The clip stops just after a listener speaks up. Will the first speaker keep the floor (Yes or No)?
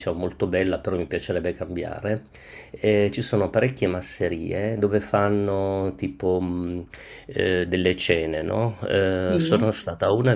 Yes